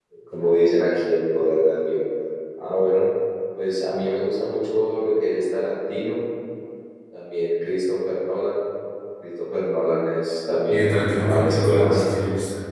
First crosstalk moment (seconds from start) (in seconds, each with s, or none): 10.7 s